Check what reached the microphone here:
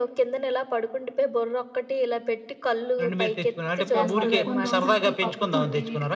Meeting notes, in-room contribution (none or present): present